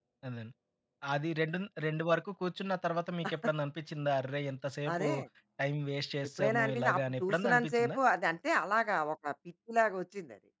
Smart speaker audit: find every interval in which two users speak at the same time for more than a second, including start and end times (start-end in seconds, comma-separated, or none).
6.4-8.0